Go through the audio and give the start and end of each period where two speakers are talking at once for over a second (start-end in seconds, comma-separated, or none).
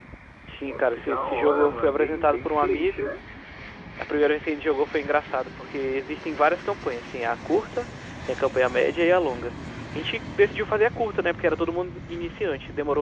0.6-3.1